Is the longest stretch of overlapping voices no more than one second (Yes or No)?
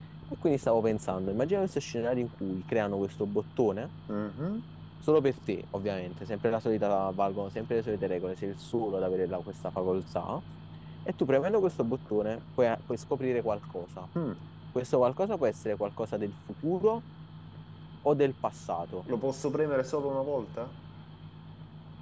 Yes